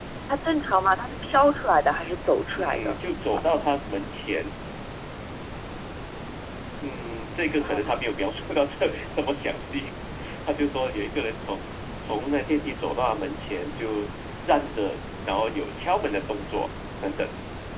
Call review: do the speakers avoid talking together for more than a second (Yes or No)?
Yes